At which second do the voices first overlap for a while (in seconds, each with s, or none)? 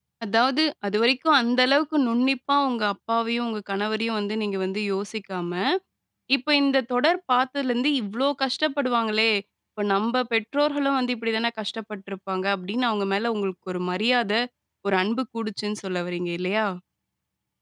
none